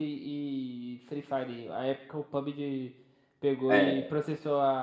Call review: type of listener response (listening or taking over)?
listening